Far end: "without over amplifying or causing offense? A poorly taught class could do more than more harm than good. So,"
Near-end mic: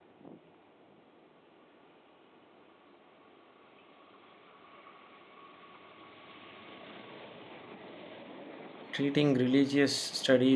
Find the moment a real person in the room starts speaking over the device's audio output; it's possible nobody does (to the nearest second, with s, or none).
9 s